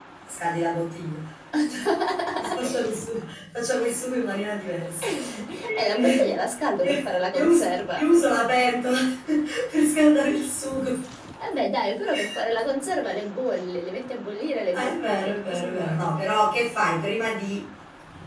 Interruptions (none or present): present